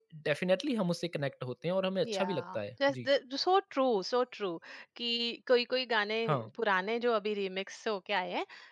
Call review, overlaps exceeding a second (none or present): none